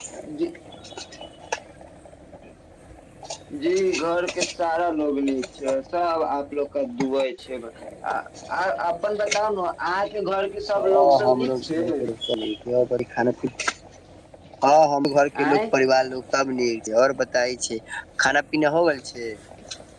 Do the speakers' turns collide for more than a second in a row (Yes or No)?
Yes